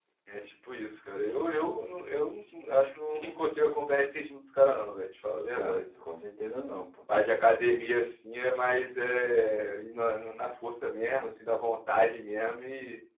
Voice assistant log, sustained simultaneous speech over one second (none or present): none